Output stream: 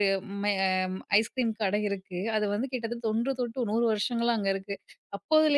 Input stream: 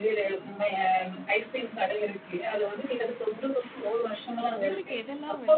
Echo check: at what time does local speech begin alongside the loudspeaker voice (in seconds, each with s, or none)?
4.6 s